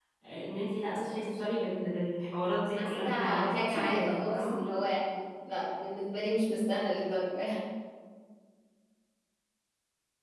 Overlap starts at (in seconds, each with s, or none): 2.8 s